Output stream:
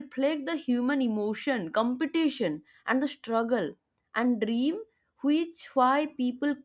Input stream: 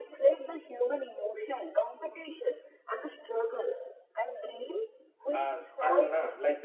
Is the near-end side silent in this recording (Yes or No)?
No